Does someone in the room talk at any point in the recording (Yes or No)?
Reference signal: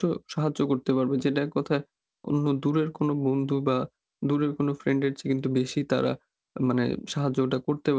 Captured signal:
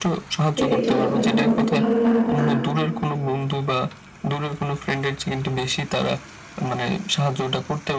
Yes